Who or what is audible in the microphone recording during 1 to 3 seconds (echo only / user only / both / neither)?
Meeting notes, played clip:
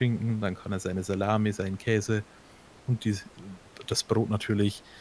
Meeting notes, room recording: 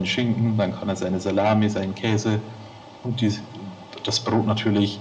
echo only